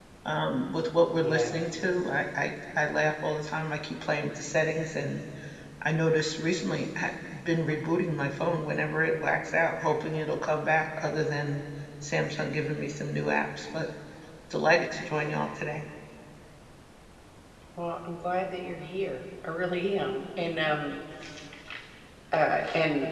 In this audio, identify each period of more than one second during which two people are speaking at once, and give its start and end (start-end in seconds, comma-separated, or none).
none